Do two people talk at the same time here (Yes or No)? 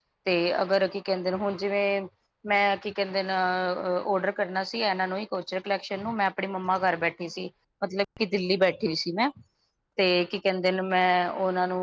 No